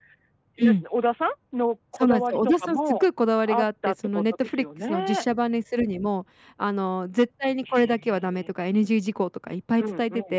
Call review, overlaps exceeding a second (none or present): present